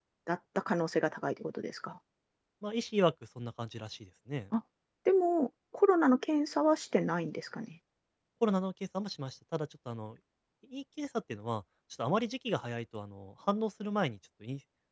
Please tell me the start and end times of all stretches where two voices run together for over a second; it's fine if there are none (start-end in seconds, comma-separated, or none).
none